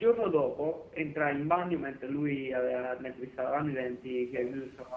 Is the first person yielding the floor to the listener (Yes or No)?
No